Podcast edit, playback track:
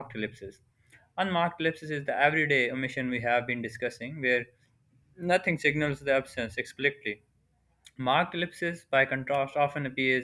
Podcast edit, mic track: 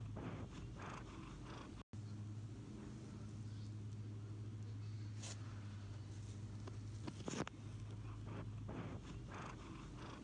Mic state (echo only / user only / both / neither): neither